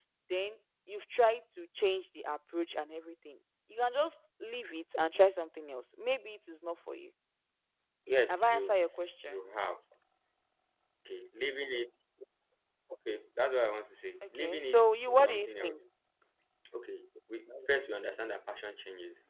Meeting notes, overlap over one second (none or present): present